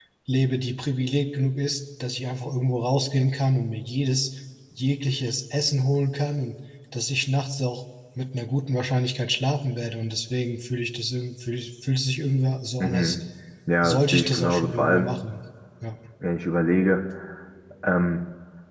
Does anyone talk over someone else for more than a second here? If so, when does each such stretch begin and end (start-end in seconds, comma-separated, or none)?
13.8-15.1